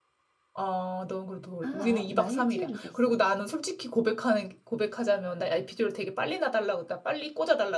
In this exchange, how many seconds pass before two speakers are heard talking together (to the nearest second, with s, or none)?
2 s